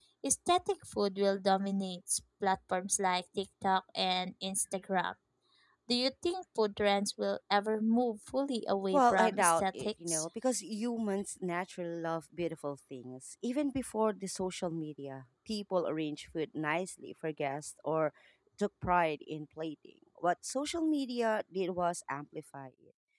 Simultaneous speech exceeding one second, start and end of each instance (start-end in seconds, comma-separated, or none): 8.9-10.2